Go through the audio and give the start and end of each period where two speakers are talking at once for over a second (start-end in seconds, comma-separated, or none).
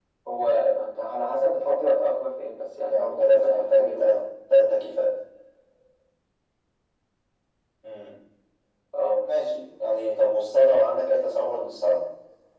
2.9-4.2